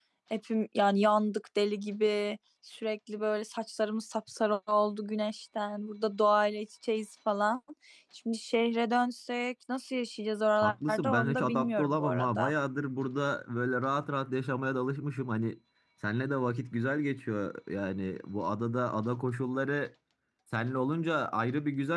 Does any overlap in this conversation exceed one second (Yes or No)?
Yes